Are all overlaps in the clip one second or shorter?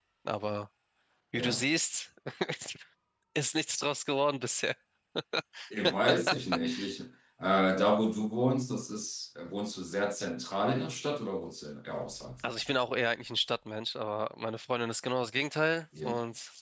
Yes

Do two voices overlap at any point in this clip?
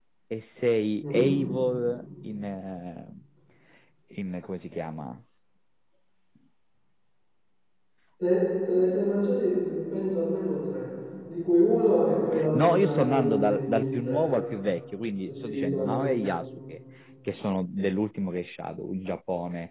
Yes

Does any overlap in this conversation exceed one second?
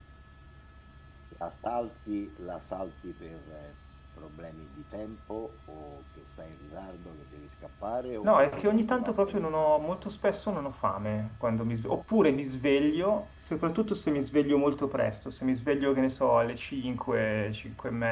Yes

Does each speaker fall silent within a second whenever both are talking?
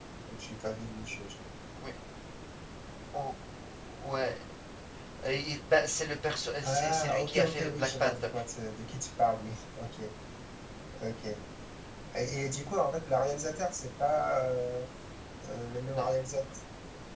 No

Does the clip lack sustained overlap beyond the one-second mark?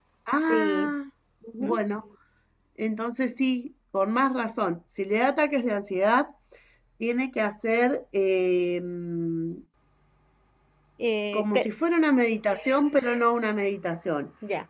Yes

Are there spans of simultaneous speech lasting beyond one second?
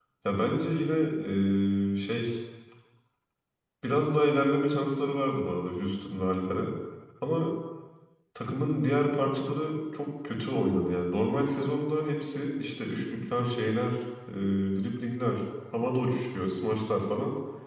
No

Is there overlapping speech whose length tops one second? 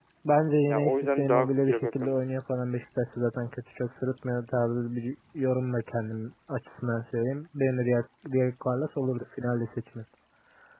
Yes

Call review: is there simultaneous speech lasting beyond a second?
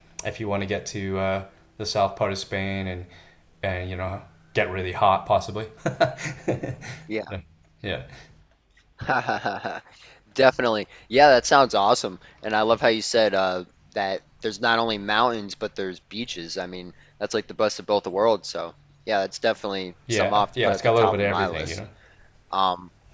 Yes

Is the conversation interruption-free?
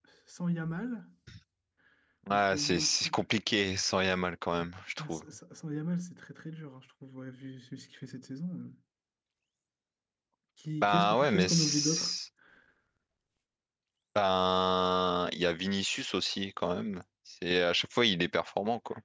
No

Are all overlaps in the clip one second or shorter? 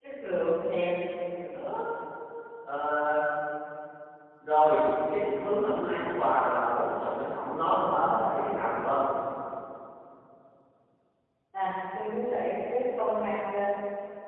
Yes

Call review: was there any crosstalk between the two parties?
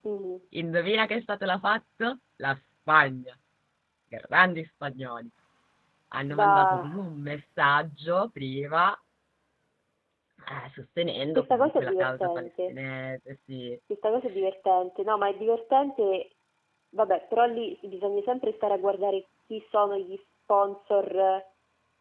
Yes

